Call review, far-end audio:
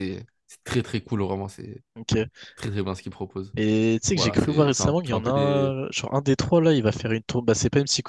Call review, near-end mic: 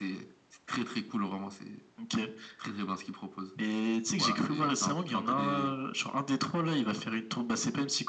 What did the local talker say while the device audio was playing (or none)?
none